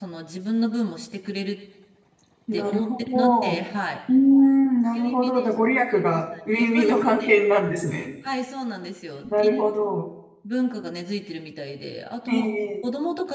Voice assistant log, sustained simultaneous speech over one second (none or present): present